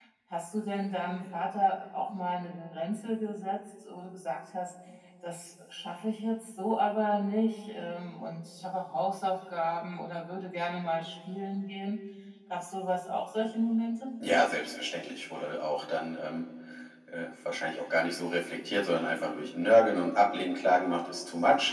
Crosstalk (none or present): none